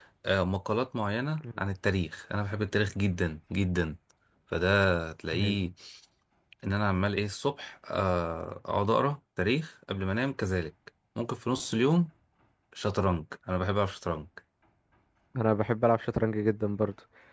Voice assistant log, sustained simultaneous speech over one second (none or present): none